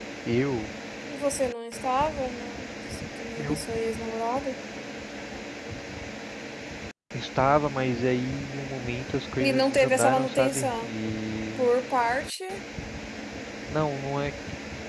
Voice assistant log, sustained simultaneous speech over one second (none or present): present